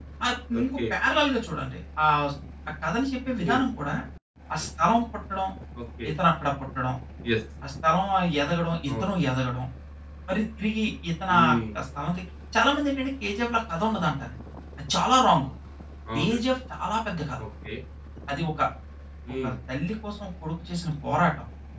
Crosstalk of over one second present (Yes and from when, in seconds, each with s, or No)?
No